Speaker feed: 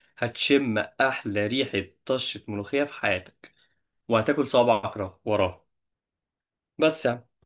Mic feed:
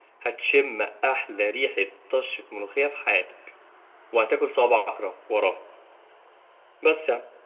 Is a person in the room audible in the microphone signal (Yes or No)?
No